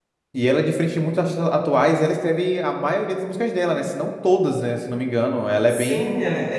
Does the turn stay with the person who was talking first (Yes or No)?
No